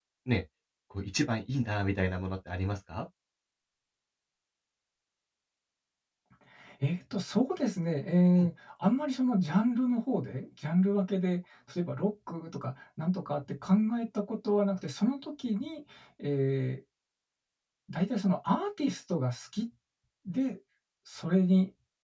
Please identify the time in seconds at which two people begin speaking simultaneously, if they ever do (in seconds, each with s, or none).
none